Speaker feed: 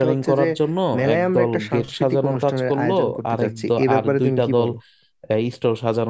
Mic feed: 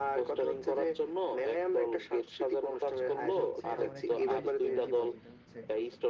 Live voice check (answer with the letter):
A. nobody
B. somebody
B